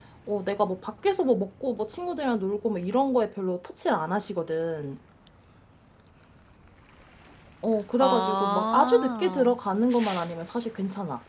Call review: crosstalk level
present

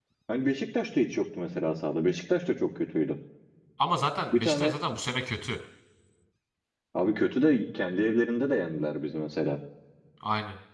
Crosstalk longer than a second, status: none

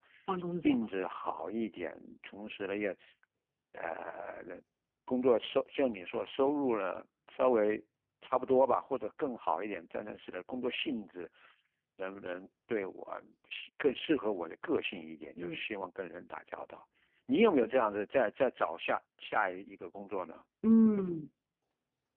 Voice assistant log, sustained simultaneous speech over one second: none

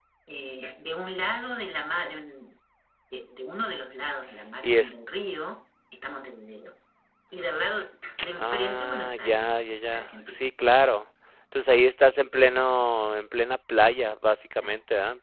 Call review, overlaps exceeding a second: present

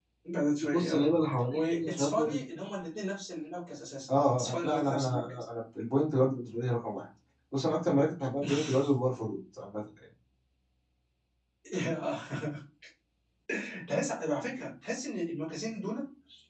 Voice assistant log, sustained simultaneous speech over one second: present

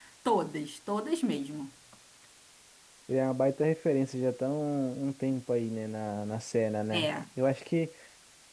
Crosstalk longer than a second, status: none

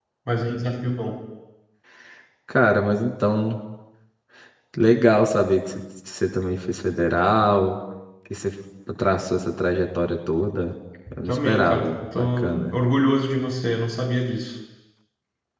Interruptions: present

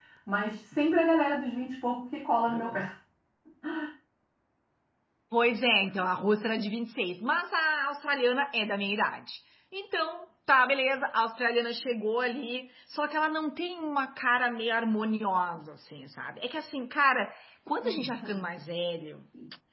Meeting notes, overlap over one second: none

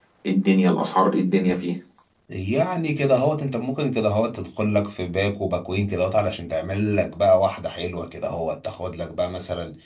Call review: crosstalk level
none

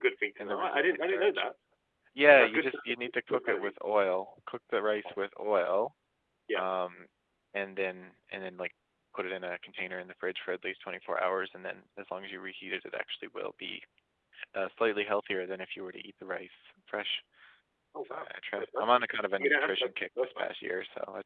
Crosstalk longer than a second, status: present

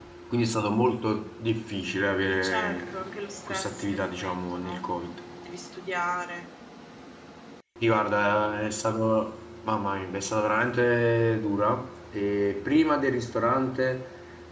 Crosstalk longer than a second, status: present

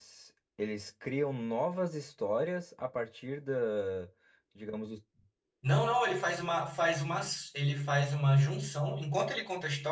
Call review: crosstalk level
none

